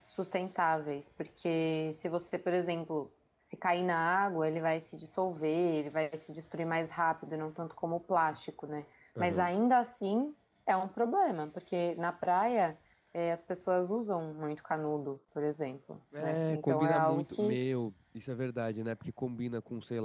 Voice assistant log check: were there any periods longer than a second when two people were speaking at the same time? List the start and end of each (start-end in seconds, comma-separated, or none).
16.2-17.6